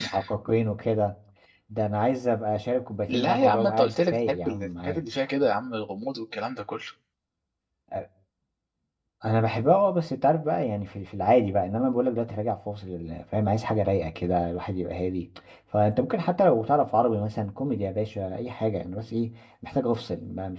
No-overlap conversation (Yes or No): No